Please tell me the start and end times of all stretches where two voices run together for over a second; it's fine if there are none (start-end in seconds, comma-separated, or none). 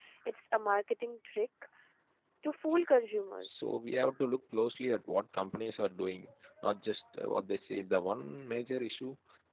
none